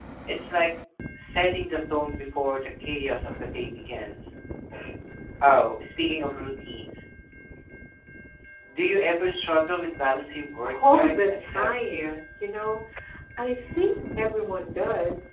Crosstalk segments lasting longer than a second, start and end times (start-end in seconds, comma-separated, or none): 10.6-12.2